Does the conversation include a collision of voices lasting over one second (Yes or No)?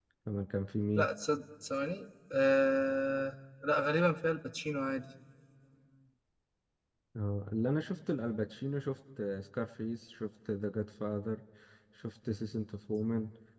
No